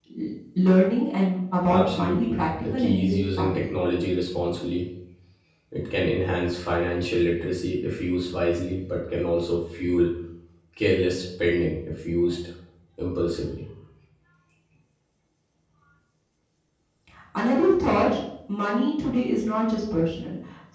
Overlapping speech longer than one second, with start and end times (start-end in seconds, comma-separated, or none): 1.7-3.6